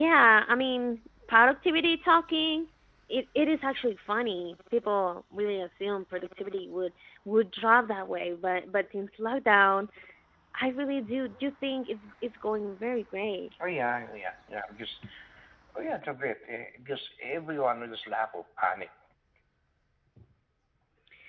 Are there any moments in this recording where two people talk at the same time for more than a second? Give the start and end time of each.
none

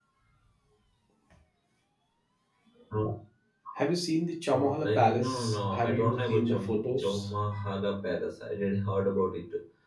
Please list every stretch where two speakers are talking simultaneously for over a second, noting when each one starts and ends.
4.5-7.3

